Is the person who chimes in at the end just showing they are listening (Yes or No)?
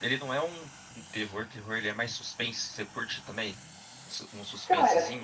No